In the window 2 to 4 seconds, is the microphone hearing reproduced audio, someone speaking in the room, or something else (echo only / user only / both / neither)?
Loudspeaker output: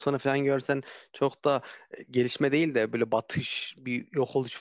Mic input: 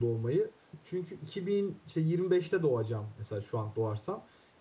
user only